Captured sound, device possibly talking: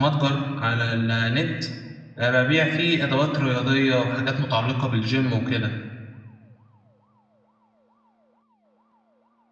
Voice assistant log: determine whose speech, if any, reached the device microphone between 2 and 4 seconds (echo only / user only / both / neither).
user only